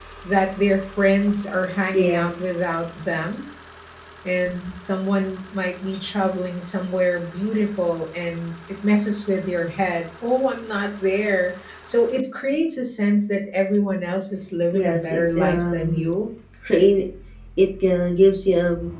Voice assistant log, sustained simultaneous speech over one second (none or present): present